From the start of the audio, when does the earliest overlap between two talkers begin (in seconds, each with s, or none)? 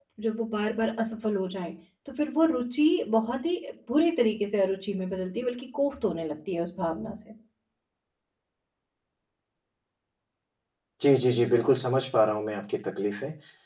none